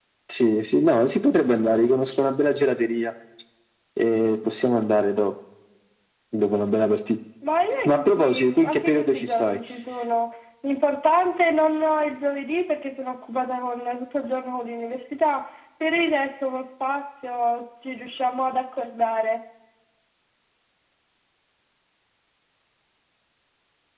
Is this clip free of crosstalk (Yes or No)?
No